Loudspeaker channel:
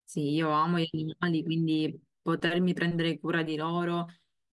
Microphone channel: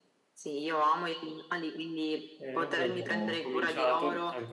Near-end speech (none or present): present